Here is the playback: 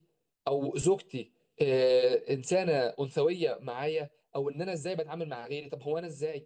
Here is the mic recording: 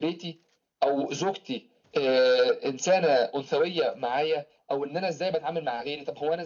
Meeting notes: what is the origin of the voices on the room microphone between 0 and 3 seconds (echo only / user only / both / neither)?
echo only